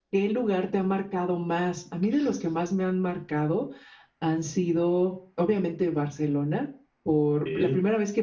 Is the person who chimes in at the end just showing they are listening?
Yes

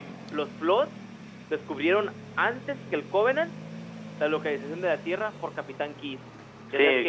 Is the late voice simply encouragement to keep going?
No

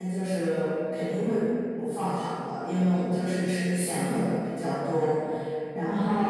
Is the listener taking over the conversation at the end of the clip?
No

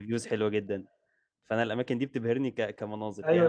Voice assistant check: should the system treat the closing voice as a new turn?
Yes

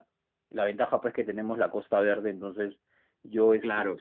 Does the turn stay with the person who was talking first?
Yes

